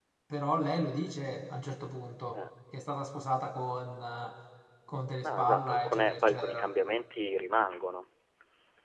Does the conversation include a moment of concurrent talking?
Yes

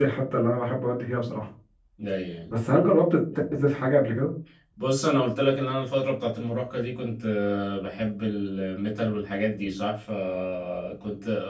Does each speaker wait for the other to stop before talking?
Yes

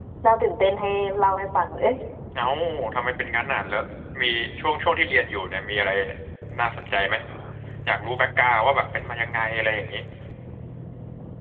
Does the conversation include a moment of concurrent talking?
No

